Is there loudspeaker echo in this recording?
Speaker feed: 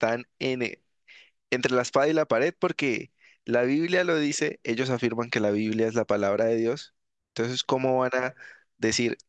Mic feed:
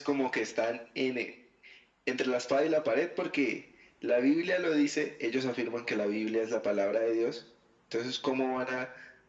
Yes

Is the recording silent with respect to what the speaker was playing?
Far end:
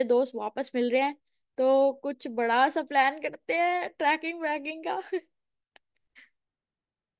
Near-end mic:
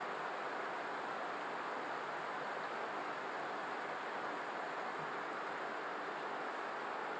Yes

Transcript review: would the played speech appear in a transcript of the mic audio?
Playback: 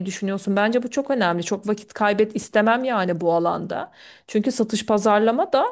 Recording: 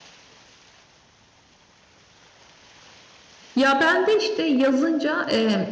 No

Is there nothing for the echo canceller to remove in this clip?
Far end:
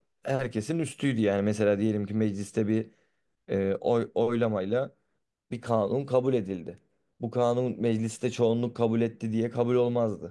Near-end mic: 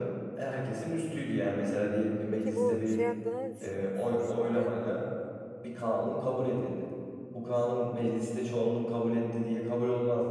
No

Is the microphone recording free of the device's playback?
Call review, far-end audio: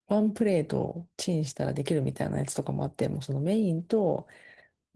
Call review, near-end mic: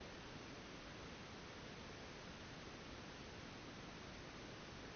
Yes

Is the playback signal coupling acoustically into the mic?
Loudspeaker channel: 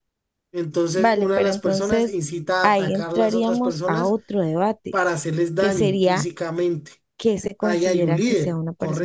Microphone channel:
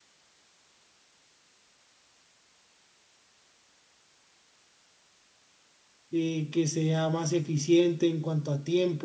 No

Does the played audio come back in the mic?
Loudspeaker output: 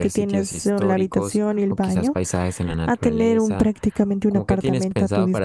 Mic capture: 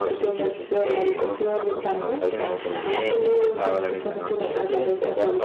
Yes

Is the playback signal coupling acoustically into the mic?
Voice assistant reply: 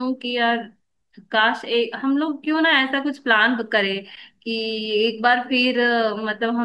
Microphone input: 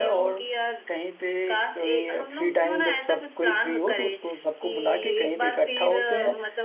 Yes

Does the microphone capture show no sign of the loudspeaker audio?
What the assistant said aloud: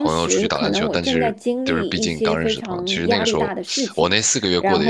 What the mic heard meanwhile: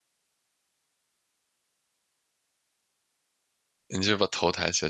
Yes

